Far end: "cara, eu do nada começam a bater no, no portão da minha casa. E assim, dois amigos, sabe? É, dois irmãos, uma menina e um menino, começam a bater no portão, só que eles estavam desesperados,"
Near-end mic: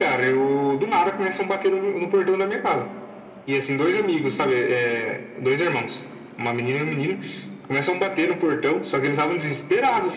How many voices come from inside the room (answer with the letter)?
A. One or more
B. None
B